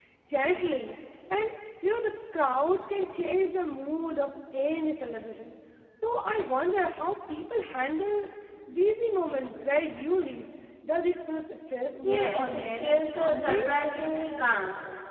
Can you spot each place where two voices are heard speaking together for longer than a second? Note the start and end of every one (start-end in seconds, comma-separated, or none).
12.0-13.6